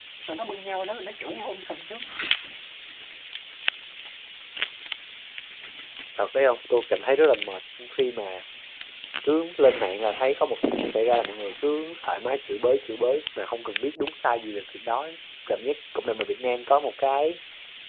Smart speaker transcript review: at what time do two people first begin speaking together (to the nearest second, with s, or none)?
none